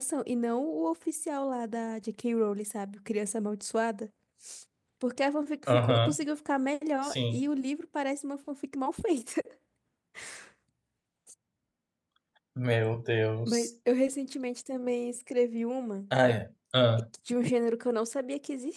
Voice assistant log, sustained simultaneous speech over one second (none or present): none